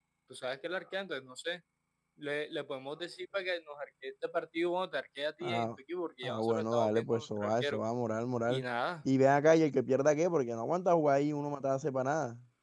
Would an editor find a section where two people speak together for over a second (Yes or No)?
Yes